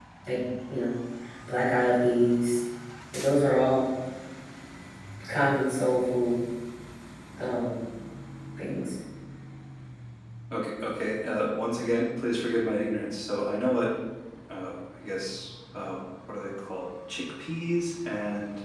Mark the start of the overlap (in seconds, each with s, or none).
none